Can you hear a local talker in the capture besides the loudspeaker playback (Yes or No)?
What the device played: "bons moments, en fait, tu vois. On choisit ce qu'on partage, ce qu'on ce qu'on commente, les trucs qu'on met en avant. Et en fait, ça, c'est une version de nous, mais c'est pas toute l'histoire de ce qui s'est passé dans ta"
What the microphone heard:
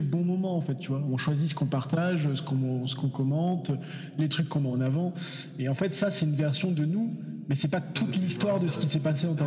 Yes